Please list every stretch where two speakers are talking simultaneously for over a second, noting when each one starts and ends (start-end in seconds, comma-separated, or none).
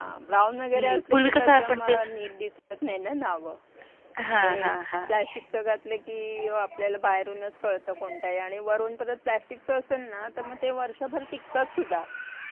0.7-2.0